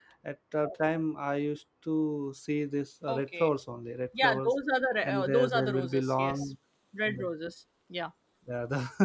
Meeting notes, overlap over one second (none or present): present